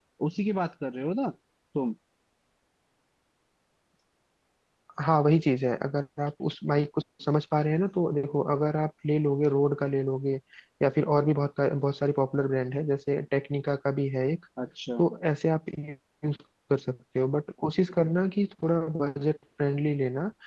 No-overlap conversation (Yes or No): Yes